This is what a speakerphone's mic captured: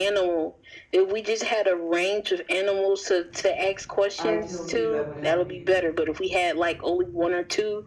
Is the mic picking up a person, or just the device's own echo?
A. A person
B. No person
A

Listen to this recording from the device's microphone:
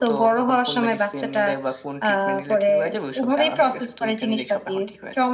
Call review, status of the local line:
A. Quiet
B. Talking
A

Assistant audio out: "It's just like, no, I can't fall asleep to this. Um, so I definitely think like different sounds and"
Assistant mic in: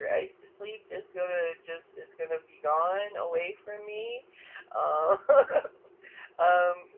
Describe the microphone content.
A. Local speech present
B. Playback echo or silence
A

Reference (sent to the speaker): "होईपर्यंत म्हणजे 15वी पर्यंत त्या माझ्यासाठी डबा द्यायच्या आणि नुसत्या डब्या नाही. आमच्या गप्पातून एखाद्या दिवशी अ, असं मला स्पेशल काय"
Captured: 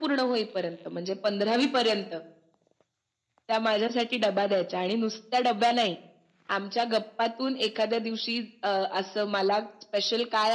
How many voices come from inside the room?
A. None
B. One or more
A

